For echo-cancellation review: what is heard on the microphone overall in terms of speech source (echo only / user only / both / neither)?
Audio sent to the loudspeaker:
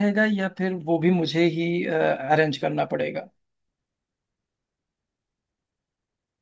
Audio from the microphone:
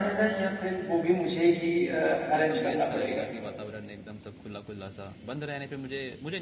both